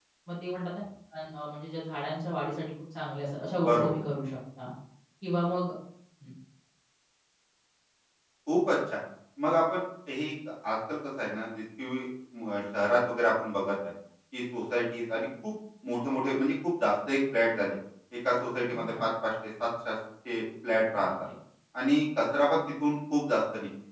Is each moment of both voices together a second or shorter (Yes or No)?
Yes